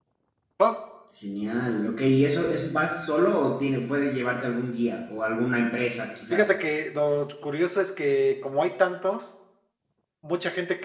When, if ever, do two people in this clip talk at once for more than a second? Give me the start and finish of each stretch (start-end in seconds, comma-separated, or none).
none